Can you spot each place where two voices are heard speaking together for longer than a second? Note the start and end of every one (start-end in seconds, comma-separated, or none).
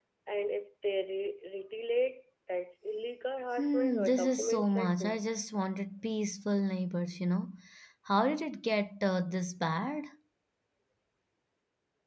3.6-5.2